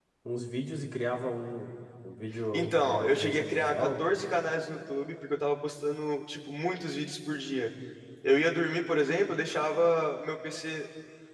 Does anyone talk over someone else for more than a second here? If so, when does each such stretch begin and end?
2.5-3.9

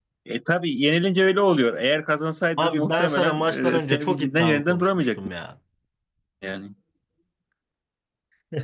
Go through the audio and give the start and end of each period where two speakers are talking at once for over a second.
2.6-5.3

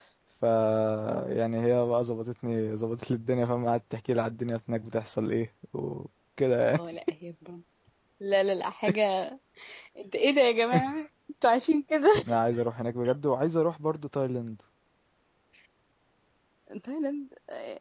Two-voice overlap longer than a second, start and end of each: none

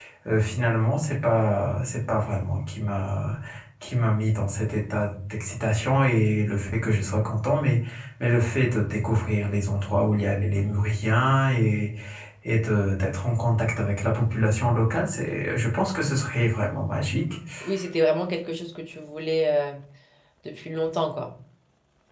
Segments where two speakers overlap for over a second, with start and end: none

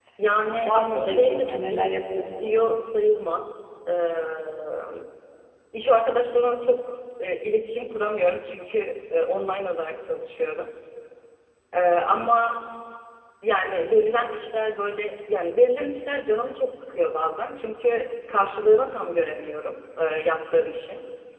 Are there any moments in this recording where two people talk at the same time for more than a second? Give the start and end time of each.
0.7-2.5

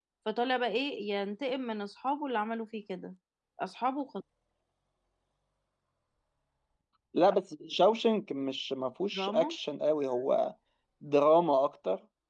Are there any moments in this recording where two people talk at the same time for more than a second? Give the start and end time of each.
none

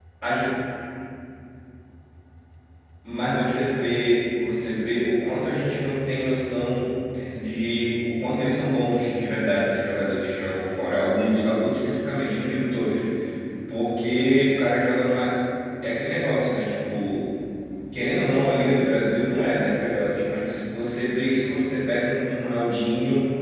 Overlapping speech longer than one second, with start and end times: none

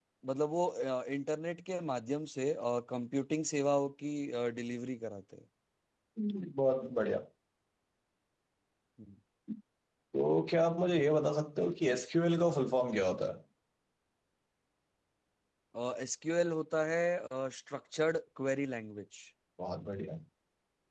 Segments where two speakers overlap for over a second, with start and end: none

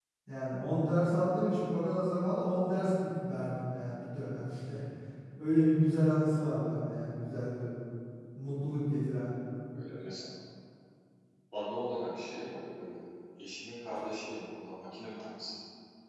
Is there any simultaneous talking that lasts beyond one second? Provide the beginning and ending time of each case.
none

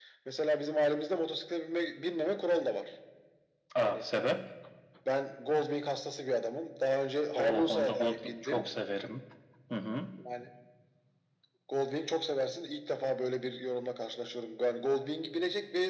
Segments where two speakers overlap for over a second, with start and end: 7.3-8.7

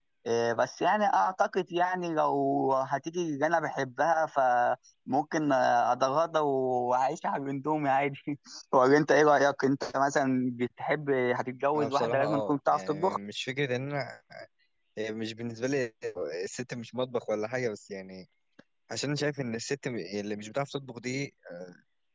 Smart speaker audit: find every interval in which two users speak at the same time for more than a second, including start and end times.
11.7-13.2

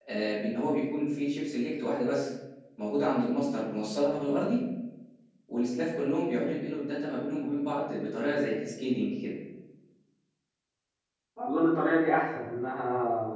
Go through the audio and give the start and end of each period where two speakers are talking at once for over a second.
none

